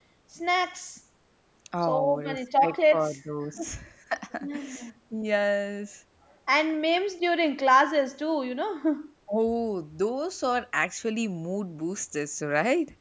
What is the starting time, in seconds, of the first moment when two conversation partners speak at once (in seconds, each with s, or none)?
1.8 s